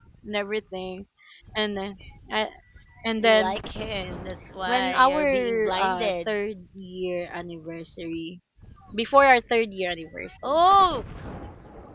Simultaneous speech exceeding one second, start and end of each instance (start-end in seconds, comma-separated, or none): 4.7-6.3